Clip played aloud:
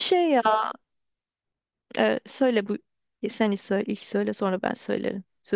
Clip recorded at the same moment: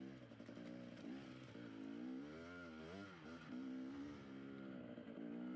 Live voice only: none

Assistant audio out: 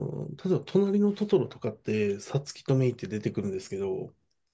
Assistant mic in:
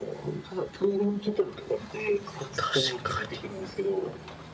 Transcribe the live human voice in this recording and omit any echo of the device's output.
確かに。

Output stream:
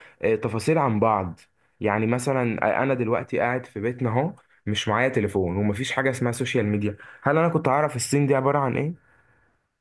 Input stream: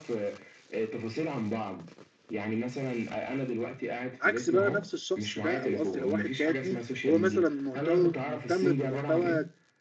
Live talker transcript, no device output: عكس بقى نفس الشخص ده او قصدي لو واحد تاني هو مثلا مهتم مهتم بمحتوى

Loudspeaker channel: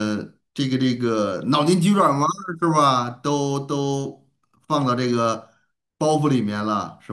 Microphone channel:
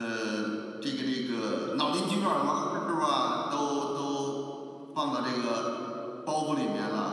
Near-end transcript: none

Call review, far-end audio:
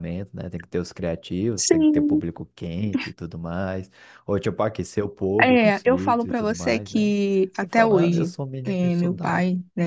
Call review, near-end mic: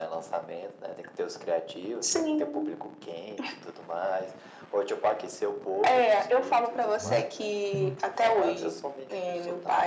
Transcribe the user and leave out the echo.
Uhum. Tá bom.

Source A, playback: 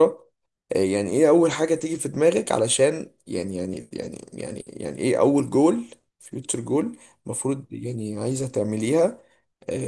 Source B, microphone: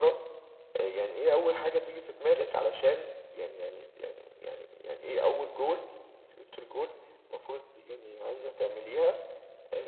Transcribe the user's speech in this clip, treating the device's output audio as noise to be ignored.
none

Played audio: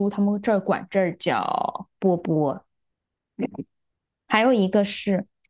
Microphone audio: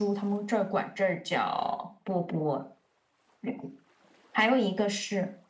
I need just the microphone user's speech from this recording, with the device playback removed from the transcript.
none

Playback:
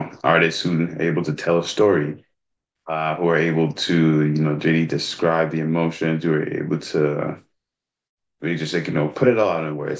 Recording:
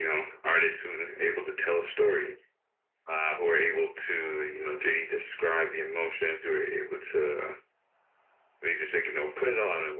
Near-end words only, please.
none

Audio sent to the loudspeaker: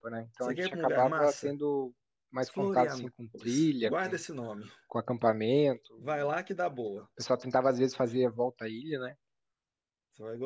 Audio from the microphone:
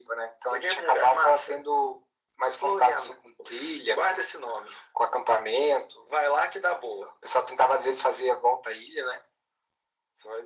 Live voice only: none

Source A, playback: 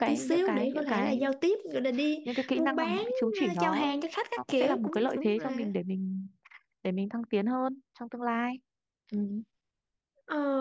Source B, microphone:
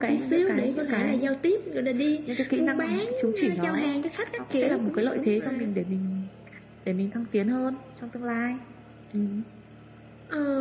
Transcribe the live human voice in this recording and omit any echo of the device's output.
none

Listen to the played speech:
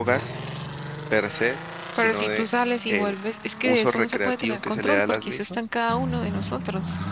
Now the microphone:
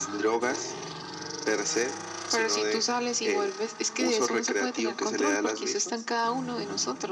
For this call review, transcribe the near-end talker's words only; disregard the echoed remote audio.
none

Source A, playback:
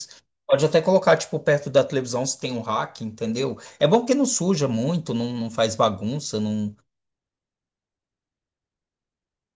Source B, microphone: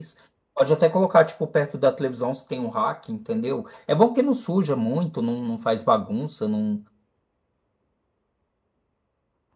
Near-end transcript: none

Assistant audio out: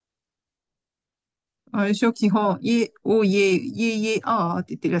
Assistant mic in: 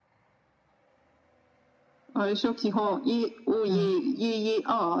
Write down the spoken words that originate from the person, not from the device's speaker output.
うん。

